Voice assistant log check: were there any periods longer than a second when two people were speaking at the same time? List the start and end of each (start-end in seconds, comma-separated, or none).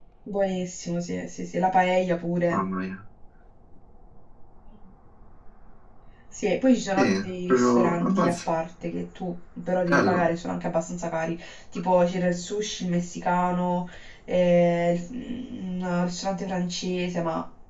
7.0-8.3